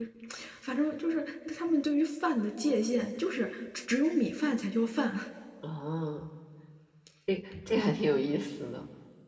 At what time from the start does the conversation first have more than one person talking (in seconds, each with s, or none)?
none